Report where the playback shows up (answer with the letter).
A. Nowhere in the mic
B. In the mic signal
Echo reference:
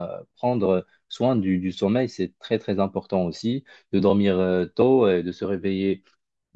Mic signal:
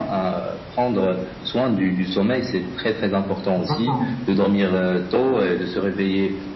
B